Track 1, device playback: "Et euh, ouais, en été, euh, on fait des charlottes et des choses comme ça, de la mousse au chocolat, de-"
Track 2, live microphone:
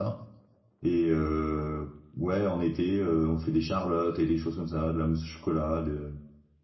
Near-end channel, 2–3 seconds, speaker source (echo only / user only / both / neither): echo only